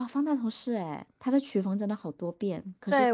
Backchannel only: No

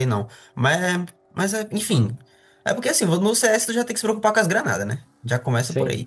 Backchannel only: Yes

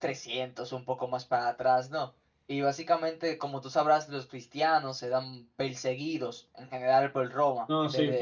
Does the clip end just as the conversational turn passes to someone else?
Yes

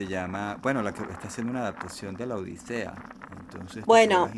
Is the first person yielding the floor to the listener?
Yes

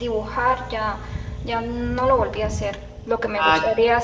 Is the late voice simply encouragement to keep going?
Yes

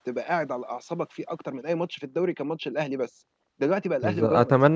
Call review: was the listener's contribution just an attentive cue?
No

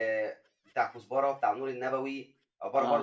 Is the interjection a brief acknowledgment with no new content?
Yes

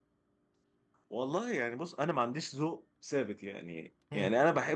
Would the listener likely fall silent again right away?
Yes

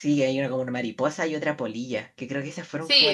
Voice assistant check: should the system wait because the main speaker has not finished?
No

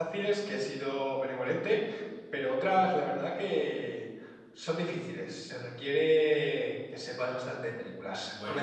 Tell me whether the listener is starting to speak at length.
Yes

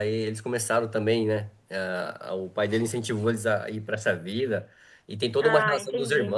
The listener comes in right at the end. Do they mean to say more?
No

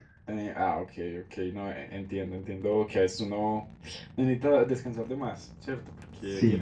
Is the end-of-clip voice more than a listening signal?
No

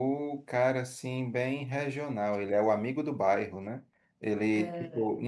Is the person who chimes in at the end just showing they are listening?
Yes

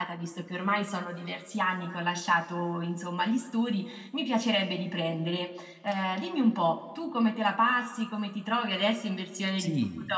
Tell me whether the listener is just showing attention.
No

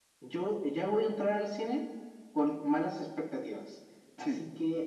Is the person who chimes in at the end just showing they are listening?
Yes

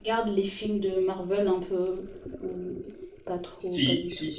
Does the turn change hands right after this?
Yes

